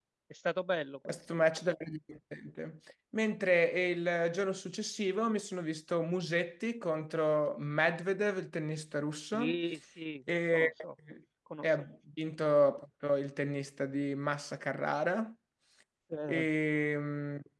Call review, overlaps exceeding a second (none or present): none